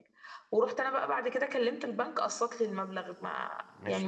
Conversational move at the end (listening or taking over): taking over